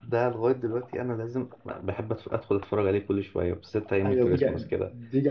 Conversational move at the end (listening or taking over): taking over